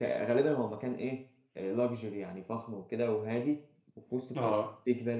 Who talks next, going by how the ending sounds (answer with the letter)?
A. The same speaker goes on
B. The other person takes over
A